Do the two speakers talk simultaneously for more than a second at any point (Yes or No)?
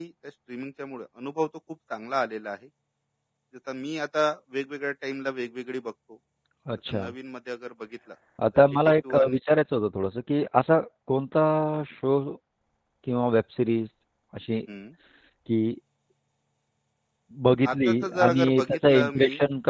Yes